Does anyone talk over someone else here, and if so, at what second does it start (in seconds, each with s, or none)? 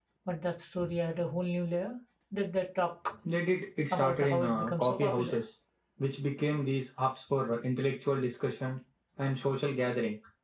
3.9 s